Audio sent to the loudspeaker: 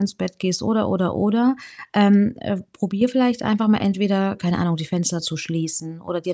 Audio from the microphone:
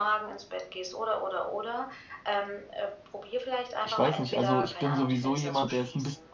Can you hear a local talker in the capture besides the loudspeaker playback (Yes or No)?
Yes